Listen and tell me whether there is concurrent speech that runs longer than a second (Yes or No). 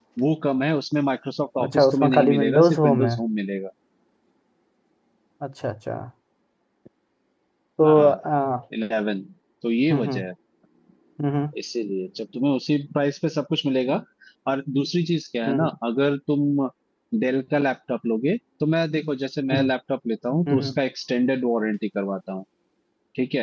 Yes